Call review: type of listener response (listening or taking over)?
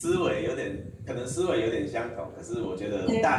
listening